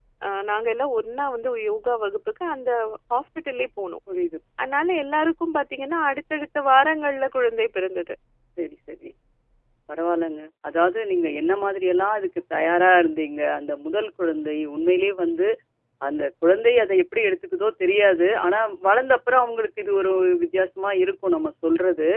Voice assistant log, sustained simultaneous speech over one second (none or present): none